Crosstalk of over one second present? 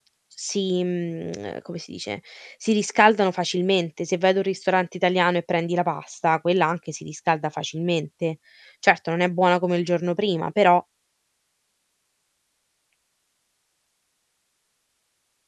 No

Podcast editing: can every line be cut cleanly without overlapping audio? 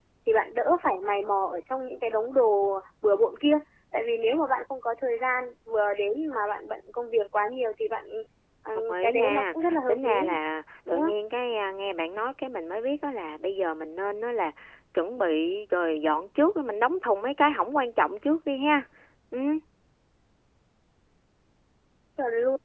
No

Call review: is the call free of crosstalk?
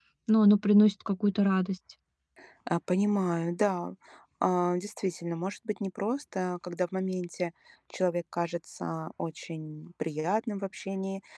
Yes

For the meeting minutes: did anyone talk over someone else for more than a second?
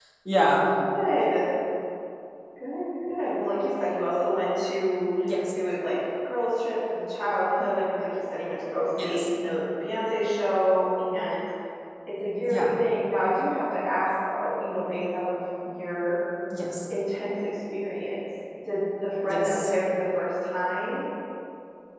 No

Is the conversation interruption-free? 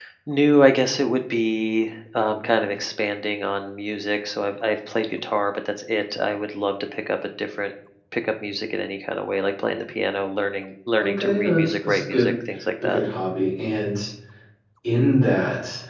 No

